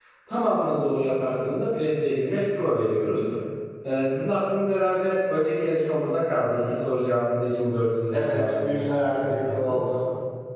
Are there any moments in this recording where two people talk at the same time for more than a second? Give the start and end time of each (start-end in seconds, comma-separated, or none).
8.1-9.8